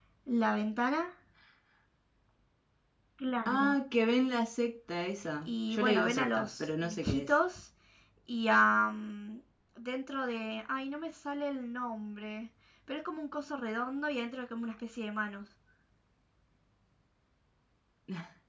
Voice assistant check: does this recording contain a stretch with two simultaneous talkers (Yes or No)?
Yes